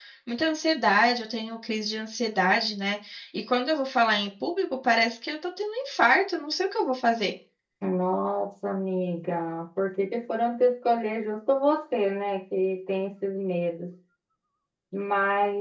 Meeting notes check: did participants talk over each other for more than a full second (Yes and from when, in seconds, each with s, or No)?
No